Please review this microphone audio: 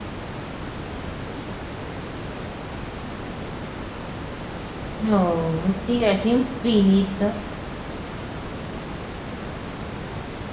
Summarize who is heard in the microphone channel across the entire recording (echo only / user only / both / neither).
user only